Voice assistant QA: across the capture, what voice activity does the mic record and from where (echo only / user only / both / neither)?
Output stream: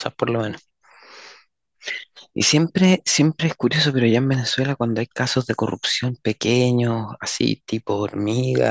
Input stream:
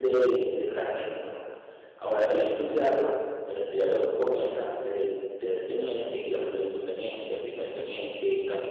user only